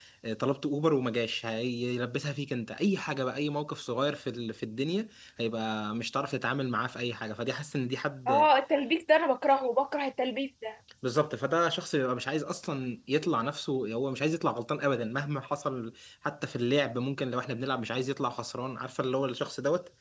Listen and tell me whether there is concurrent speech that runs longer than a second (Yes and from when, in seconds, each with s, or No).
No